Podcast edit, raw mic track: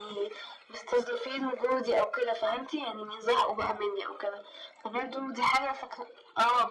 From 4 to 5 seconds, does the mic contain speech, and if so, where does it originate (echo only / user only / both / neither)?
echo only